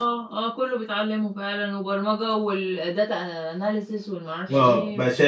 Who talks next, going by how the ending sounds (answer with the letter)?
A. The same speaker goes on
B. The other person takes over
B